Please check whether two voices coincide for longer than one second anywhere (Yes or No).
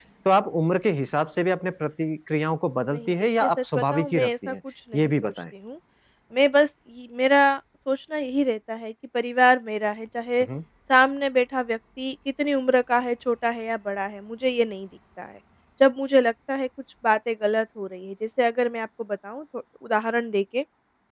Yes